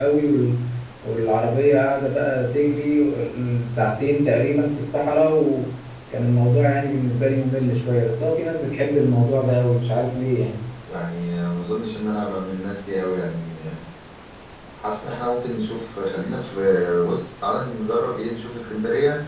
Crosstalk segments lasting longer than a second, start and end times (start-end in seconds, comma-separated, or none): none